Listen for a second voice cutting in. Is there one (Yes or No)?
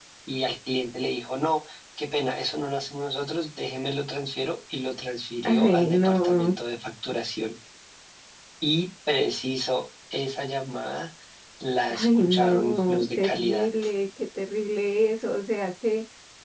Yes